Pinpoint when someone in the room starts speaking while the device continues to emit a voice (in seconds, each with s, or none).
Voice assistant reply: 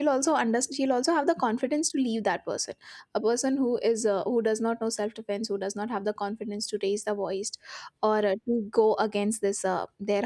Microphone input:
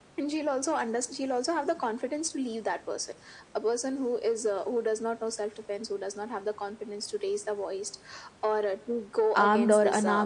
9.3 s